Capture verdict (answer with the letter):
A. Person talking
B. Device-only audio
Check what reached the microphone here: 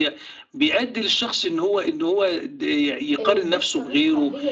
A